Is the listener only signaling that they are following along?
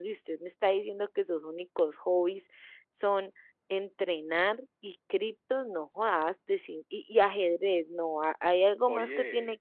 Yes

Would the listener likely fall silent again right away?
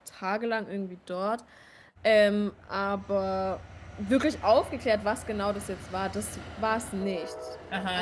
No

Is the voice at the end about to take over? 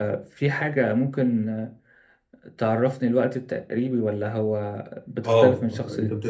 Yes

